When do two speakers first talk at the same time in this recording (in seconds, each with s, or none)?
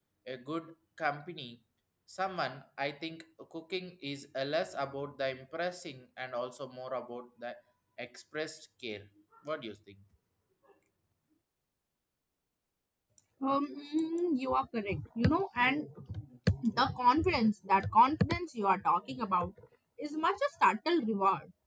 none